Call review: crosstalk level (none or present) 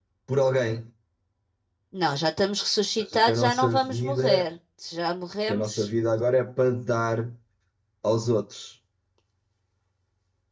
present